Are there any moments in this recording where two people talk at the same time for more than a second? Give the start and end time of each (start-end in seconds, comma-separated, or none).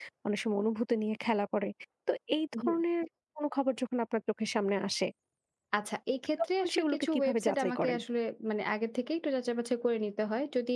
6.6-8.0